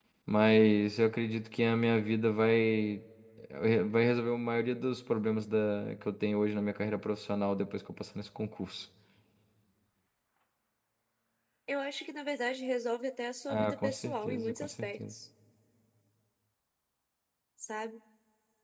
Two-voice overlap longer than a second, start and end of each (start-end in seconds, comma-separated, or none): 13.5-15.1